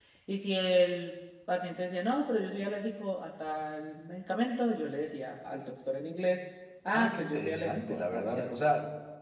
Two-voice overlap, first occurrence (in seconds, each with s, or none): 6.9 s